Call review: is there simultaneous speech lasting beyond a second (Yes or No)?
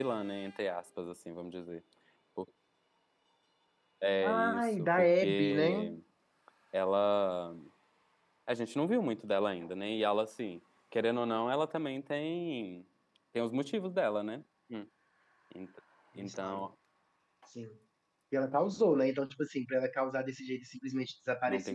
Yes